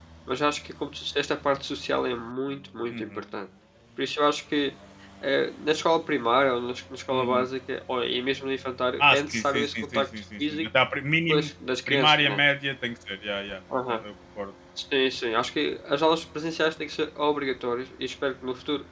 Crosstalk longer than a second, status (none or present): present